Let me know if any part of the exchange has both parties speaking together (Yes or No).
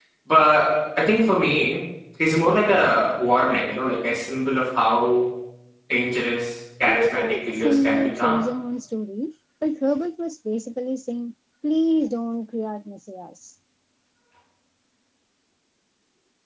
Yes